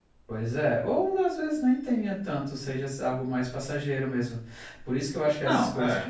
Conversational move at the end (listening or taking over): listening